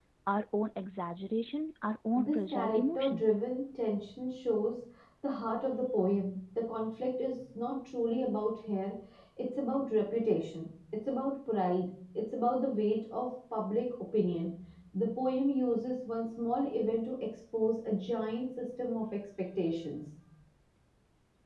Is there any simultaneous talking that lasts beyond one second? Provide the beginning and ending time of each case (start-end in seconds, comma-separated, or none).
2.1-3.4